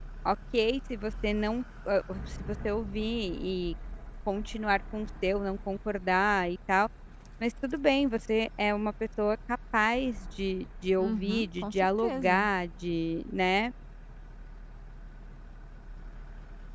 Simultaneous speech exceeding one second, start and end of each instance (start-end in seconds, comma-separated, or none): 11.0-12.5